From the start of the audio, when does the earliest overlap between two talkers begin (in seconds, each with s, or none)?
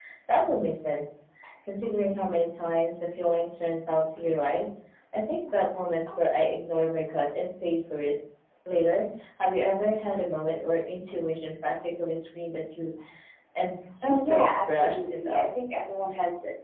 14.0 s